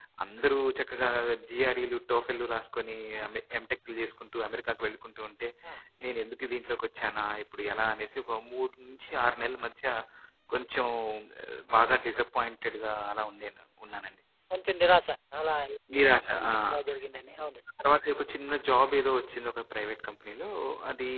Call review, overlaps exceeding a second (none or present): none